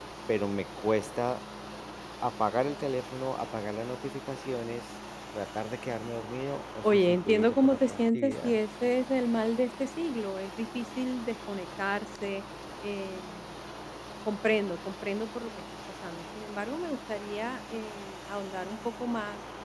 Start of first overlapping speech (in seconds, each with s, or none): 6.8 s